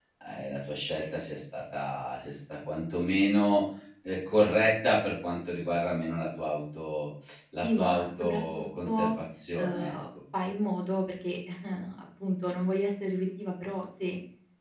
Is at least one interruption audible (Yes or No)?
Yes